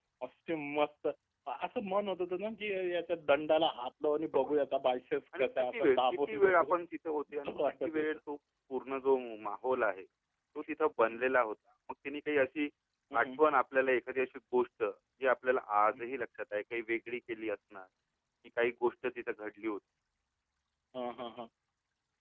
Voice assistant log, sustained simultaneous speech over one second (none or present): present